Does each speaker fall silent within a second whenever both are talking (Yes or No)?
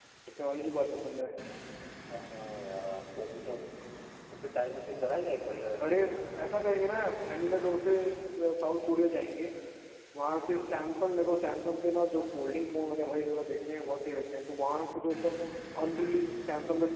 Yes